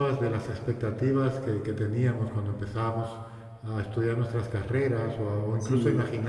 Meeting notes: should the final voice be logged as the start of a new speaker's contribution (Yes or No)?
No